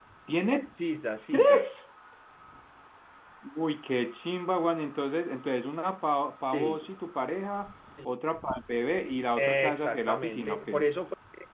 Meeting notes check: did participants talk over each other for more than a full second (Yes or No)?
Yes